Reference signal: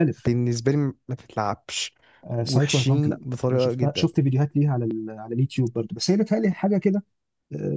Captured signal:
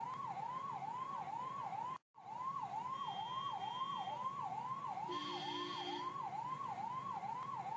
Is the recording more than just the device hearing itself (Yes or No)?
No